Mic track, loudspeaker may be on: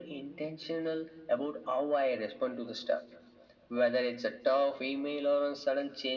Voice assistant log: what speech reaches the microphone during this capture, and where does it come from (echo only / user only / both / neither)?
echo only